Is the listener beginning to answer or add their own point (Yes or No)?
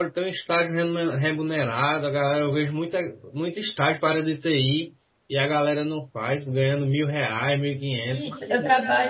Yes